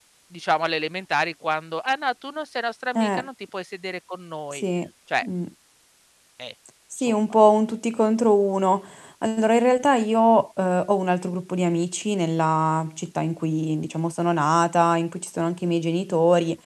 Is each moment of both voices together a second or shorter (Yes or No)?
Yes